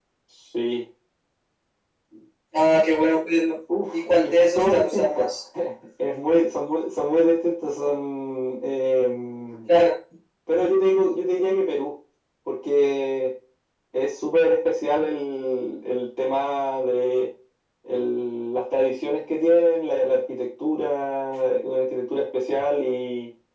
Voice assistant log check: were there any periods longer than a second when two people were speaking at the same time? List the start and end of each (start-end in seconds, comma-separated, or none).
3.9-5.3